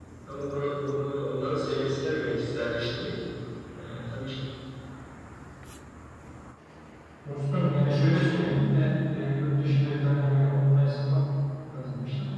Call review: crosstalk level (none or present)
none